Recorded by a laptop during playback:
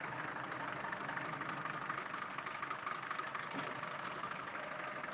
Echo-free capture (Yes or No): Yes